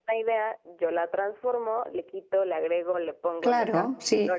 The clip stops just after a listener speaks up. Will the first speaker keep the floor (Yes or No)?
No